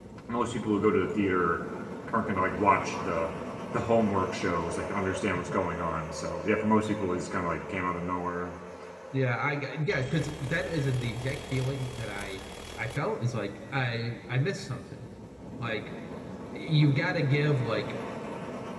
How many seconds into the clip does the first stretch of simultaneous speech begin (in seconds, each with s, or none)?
none